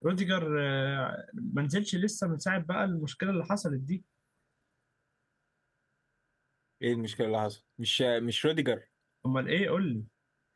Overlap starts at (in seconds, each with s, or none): none